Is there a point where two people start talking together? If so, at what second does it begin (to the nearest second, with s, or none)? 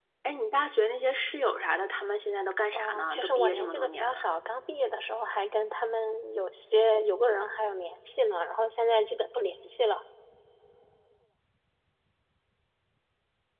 3 s